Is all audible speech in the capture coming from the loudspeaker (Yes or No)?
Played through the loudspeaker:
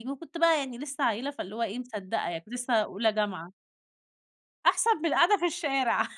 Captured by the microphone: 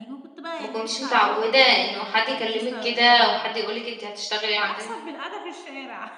No